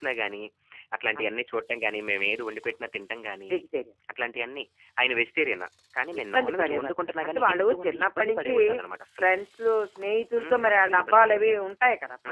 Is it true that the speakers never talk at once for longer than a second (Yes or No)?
No